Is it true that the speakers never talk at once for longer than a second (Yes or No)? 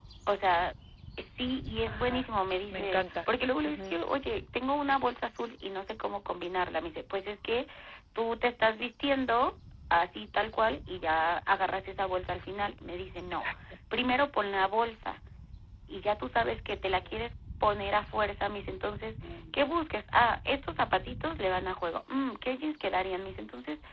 Yes